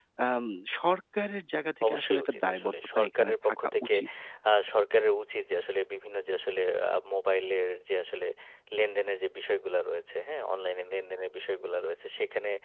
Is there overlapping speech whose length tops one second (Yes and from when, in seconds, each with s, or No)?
Yes, from 1.8 s